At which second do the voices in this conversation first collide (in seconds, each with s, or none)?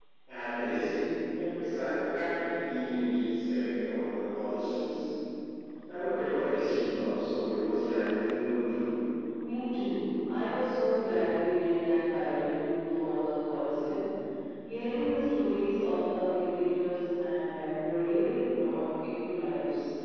none